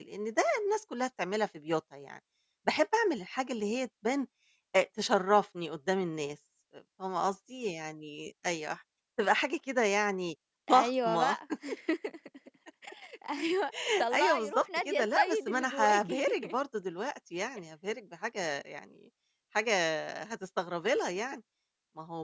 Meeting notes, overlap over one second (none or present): present